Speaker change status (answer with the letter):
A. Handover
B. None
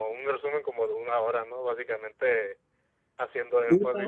B